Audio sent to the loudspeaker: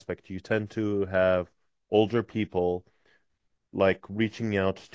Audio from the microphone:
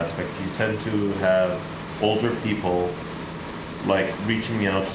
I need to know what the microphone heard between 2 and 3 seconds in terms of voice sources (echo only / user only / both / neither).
echo only